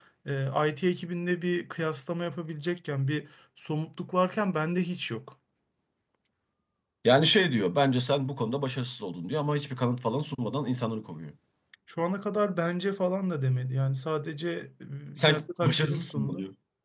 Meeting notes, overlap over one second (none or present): present